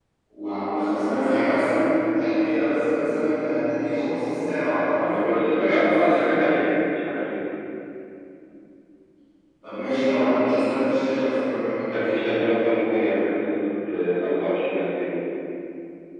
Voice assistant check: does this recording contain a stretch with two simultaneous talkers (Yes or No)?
Yes